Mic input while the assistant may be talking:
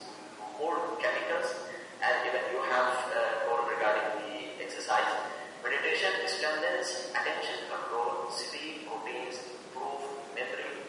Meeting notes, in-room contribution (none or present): none